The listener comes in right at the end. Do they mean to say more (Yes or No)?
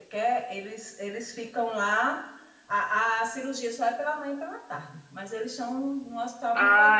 Yes